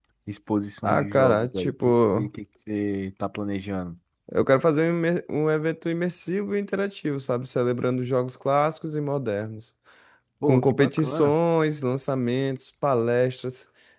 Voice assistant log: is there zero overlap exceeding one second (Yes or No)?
No